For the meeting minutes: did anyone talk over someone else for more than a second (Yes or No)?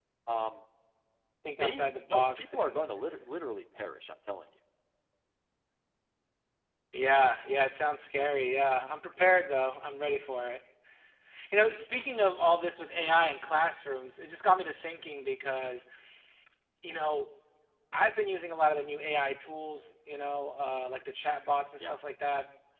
Yes